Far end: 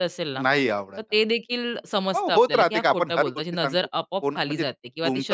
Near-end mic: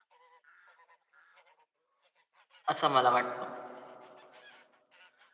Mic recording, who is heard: user only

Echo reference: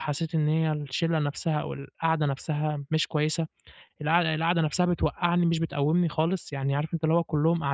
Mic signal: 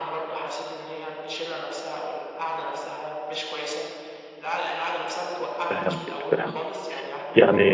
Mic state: both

